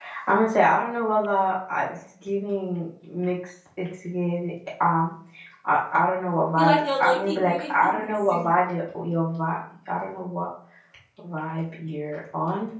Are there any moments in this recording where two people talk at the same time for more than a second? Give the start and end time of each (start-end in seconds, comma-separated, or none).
6.6-8.5